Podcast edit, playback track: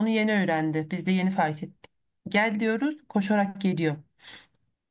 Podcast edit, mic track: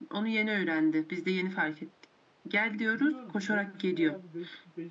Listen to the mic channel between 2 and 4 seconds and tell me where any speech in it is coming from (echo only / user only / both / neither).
both